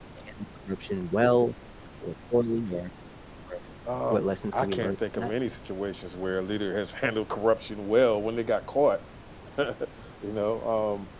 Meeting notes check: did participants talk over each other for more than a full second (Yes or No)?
Yes